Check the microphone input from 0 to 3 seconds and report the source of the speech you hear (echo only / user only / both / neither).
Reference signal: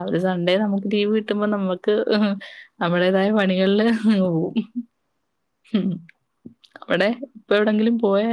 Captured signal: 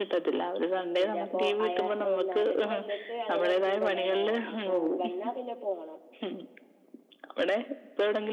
both